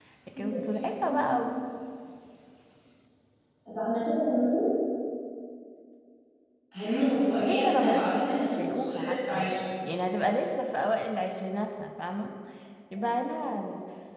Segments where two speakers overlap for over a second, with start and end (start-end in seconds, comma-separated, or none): 7.4-9.6